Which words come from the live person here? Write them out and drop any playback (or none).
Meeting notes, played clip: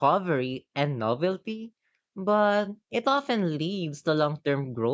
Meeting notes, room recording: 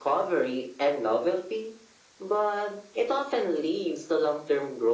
none